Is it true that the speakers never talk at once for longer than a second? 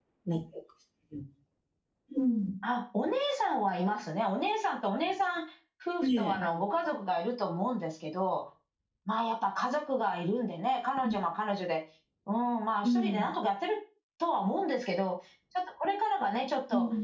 Yes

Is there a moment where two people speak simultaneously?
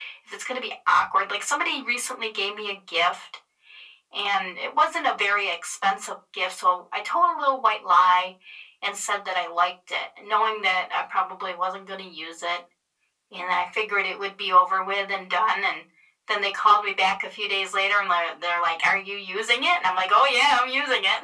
No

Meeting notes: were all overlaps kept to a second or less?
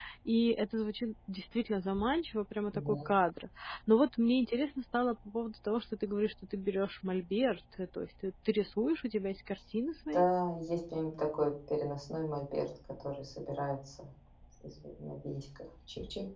Yes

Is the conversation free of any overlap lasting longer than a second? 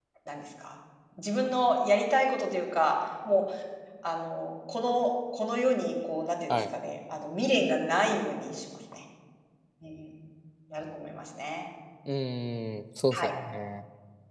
Yes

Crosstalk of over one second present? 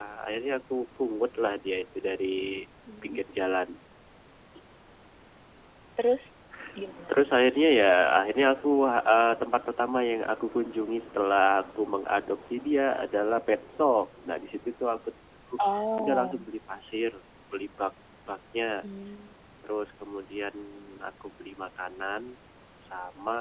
No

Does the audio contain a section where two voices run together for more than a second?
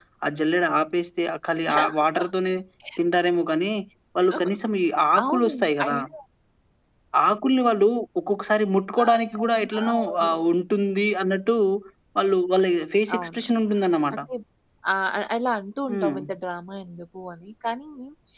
Yes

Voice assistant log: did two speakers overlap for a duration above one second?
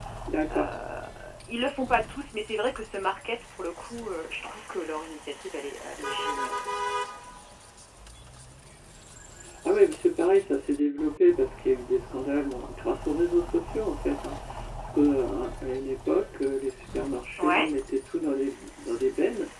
No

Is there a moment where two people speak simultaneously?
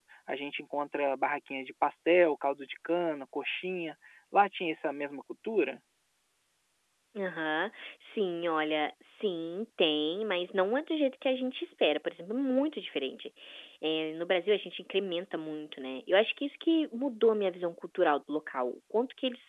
No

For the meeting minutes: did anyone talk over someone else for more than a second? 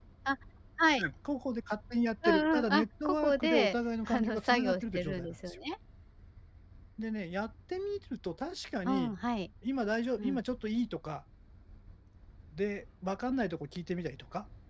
Yes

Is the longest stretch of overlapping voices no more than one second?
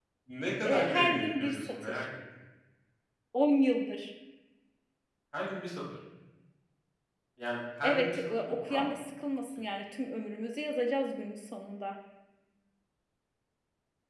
No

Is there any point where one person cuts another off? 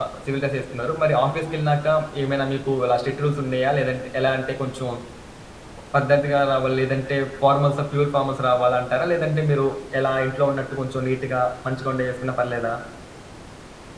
No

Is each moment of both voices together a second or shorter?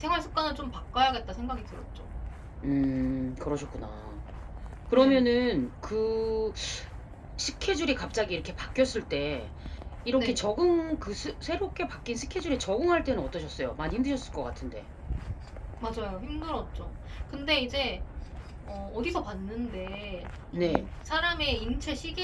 Yes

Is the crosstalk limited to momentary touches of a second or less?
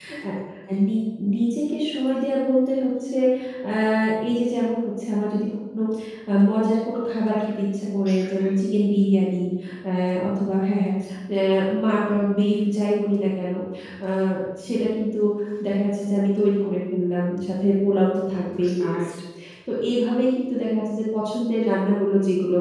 Yes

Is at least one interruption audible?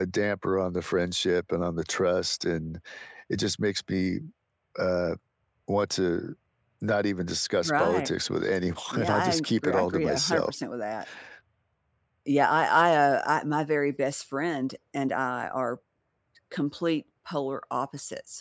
Yes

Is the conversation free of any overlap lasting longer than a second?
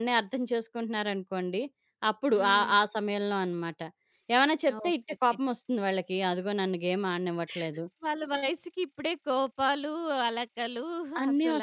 Yes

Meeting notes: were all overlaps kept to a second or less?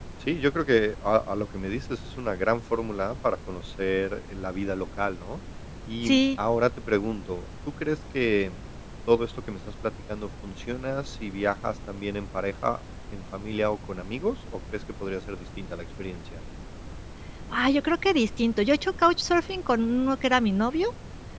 Yes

